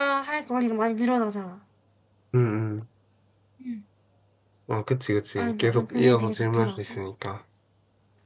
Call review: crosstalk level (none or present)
present